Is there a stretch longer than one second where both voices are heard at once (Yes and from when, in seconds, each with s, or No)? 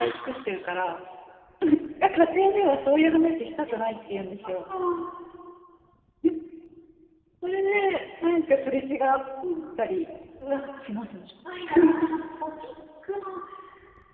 No